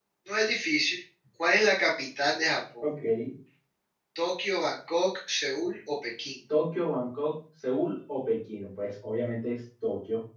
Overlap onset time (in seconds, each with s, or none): none